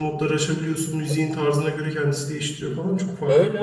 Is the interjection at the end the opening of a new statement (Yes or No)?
Yes